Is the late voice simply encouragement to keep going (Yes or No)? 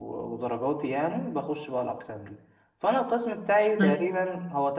Yes